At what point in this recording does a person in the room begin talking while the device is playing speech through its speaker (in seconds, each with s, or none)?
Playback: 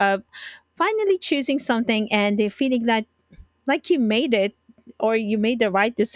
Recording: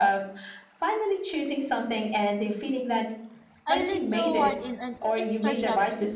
3.7 s